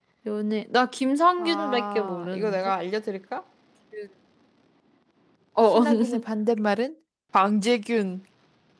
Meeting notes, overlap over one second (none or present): present